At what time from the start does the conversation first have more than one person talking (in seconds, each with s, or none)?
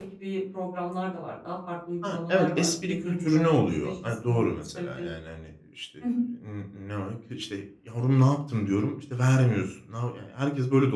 2.0 s